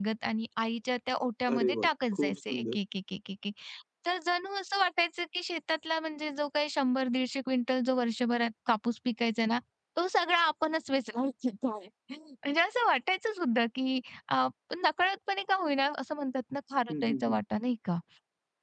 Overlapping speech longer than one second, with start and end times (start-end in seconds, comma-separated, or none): 1.5-2.8